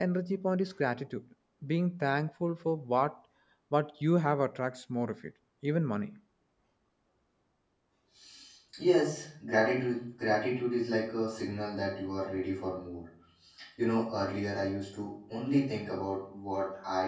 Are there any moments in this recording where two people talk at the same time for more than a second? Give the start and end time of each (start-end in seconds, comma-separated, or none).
none